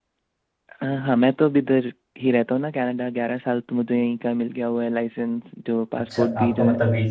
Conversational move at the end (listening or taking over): taking over